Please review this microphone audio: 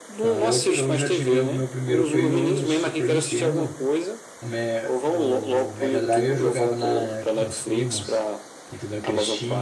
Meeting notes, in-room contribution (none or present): present